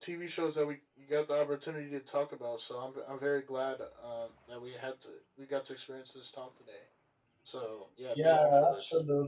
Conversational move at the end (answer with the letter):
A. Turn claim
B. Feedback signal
A